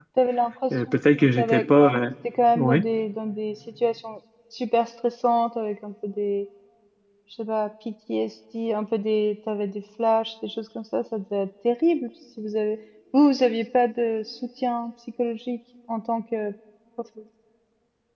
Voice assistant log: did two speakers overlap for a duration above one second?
Yes, from 0.7 s

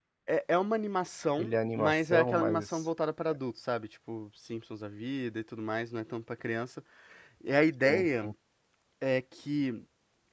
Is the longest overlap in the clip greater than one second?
Yes, from 1.4 s

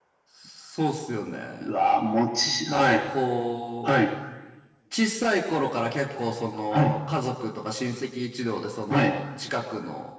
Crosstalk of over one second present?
No

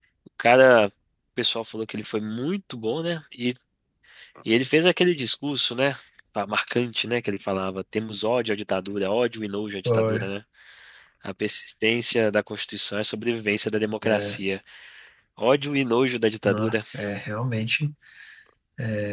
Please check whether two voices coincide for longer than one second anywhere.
No

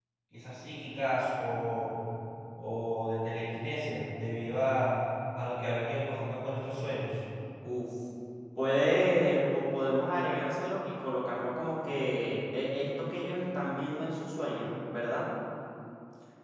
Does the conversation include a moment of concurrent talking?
No

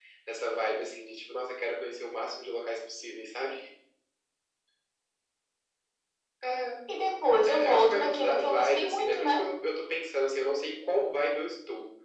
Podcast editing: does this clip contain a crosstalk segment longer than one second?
Yes, from 7.5 s

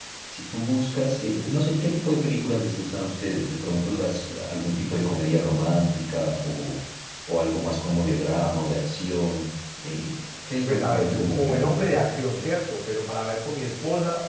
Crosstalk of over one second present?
Yes, from 10.7 s

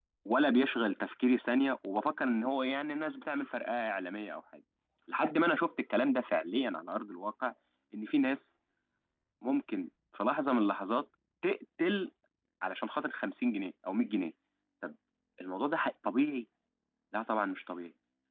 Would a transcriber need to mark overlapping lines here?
No

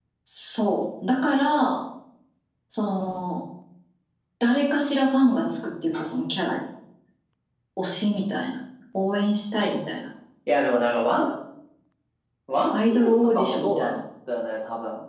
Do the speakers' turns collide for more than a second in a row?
Yes, from 12.7 s

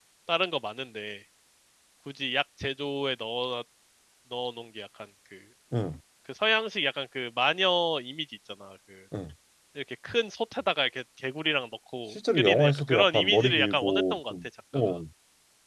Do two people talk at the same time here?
Yes, from 12.1 s

